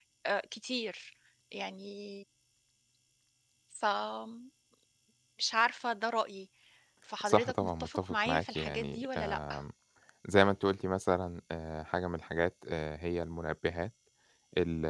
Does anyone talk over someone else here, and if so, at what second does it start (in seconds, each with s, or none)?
7.2 s